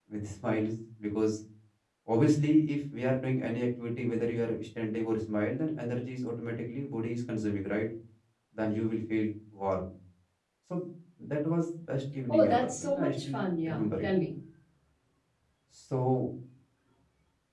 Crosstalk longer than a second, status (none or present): present